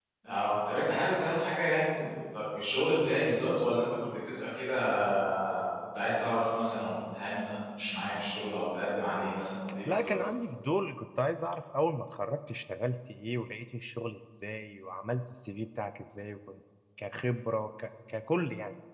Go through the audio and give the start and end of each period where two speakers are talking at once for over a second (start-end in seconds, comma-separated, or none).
none